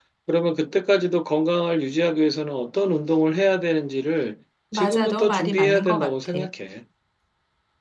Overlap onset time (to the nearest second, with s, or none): 5 s